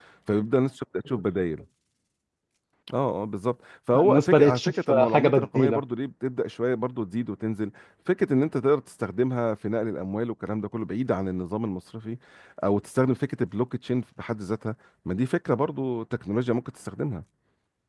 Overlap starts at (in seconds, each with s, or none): 3.9 s